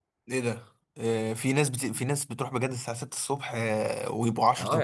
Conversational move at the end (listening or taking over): taking over